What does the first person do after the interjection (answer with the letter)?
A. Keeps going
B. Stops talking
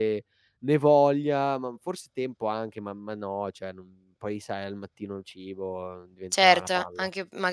B